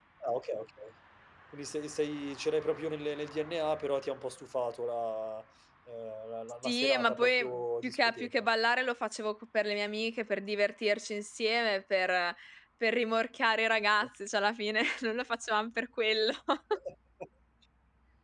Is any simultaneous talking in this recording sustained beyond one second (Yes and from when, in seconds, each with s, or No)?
Yes, from 6.6 s